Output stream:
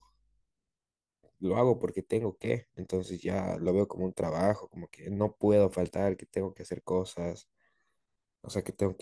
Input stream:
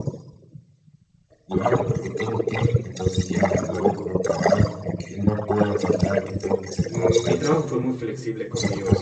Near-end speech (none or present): present